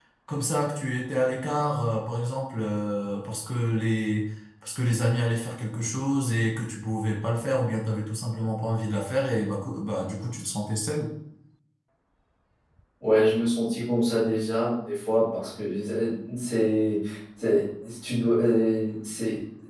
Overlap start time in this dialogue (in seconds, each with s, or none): none